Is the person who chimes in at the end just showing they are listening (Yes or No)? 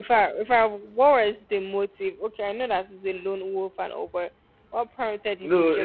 No